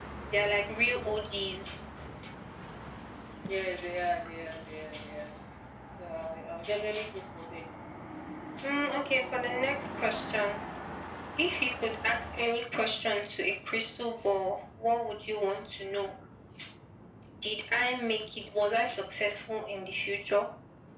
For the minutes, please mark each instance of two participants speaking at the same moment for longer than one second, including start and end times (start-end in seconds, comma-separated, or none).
none